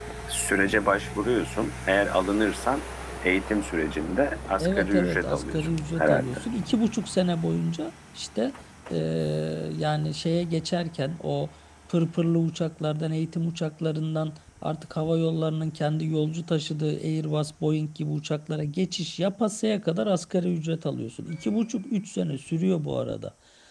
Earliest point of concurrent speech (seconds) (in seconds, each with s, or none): 4.6 s